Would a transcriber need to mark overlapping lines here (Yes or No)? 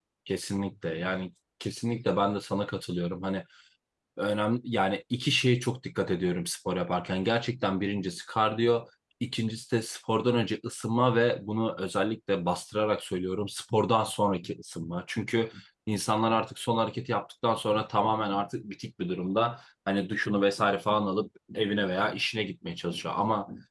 No